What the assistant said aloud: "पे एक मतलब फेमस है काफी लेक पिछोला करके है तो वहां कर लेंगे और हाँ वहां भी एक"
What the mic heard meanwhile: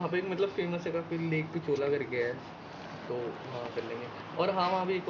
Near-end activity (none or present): none